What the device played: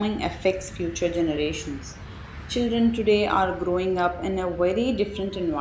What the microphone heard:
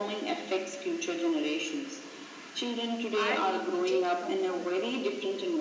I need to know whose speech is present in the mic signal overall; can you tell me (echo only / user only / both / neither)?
both